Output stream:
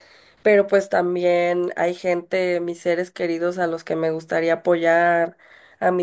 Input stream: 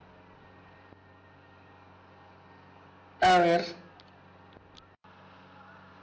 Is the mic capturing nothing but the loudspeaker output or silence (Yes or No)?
No